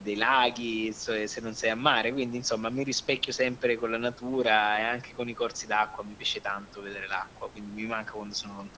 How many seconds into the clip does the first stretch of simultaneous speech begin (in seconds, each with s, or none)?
none